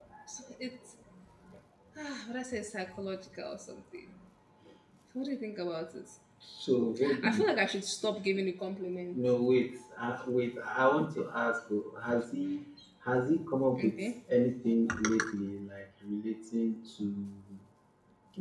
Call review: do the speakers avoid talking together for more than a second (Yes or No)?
Yes